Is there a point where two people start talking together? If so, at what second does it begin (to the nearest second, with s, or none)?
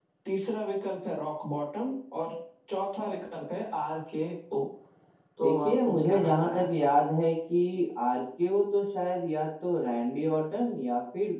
5 s